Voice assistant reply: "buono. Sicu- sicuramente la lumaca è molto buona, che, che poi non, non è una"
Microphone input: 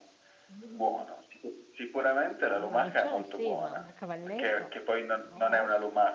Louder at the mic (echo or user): echo